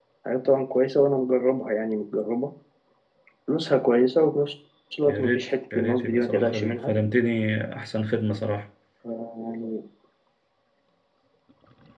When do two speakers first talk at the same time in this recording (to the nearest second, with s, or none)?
5 s